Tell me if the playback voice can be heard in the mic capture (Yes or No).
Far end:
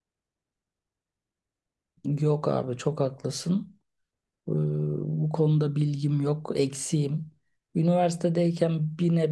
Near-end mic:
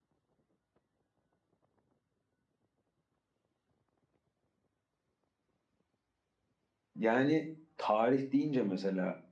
No